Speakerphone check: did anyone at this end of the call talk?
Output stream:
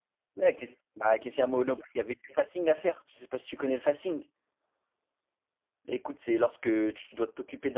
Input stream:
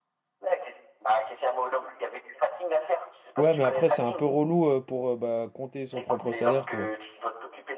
Yes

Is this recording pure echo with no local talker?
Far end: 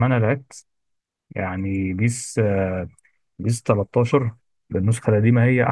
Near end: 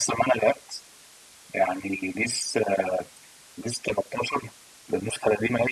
Yes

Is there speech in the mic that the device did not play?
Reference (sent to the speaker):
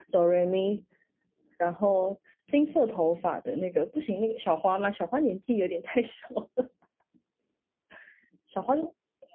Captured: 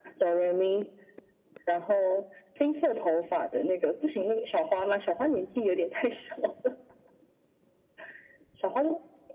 No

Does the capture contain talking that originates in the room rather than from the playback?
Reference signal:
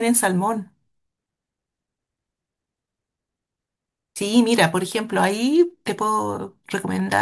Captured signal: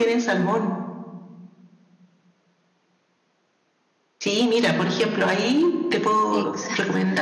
Yes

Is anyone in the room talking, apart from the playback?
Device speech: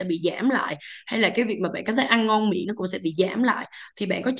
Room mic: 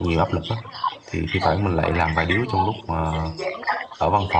Yes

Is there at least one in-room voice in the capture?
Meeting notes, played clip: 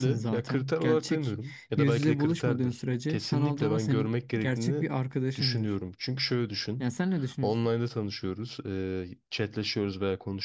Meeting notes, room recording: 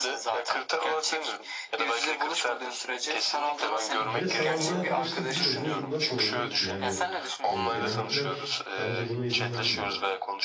Yes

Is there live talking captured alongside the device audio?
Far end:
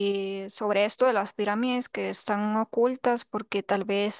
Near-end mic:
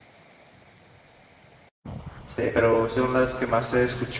Yes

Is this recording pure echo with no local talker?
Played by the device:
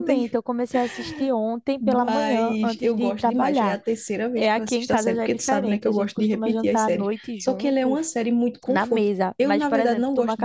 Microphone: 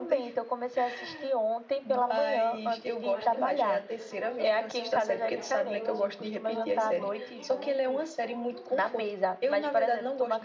No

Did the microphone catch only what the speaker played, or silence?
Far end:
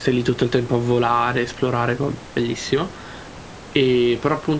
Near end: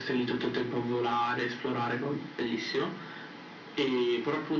Yes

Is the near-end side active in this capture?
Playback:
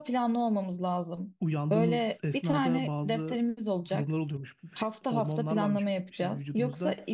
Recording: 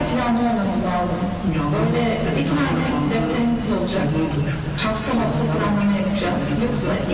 No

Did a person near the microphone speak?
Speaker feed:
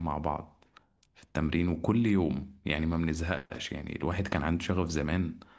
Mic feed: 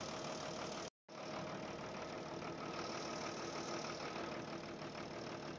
No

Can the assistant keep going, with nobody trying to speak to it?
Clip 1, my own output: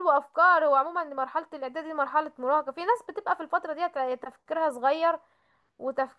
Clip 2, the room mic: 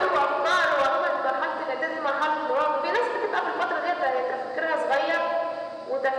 Yes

